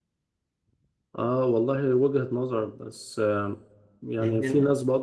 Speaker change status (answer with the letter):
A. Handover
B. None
B